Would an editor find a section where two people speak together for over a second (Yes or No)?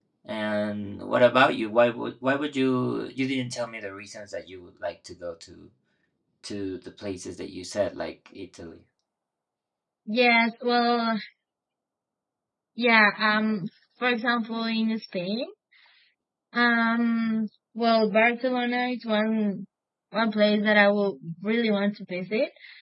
No